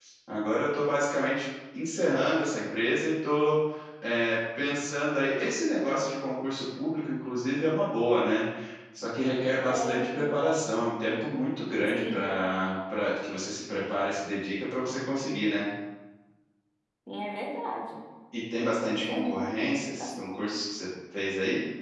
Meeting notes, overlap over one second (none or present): present